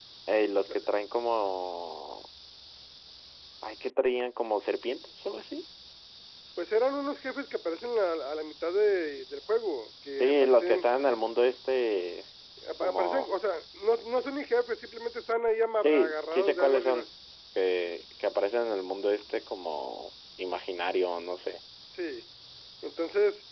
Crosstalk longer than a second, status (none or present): present